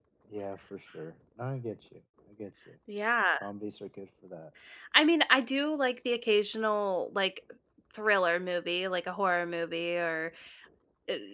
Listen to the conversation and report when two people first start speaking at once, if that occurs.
none

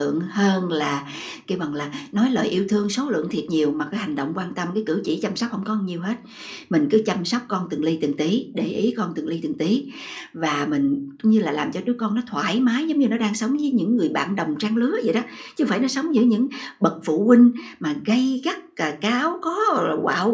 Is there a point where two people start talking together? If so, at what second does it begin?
none

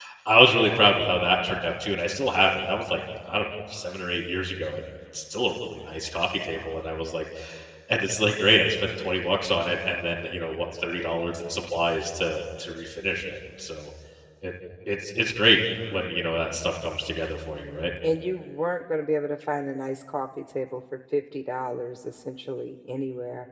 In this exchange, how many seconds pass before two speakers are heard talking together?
none

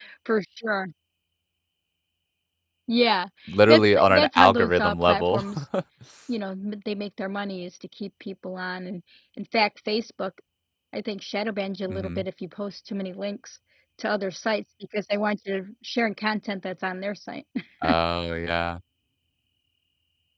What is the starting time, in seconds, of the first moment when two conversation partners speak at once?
3.7 s

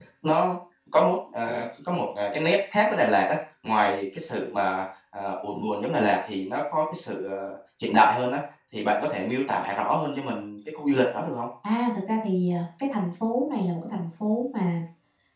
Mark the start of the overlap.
none

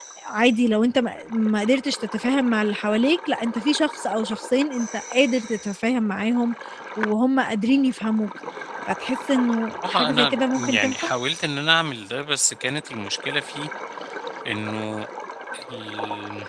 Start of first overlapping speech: 9.8 s

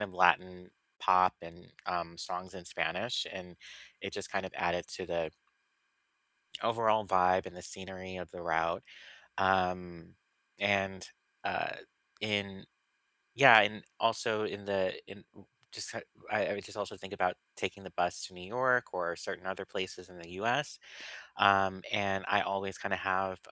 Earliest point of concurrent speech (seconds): none

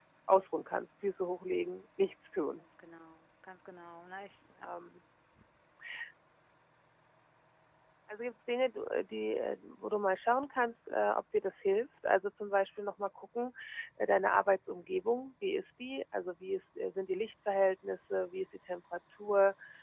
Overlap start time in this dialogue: none

